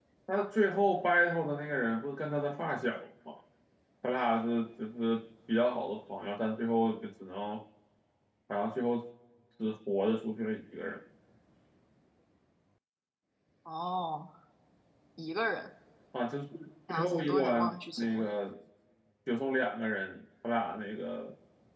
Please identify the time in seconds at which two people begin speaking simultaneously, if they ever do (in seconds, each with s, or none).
16.9 s